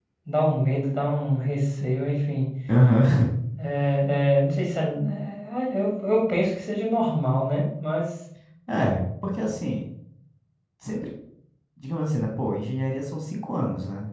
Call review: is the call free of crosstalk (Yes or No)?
Yes